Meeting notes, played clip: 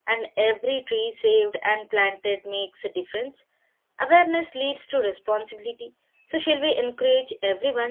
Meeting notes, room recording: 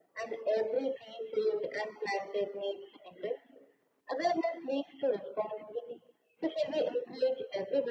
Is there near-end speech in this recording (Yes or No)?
No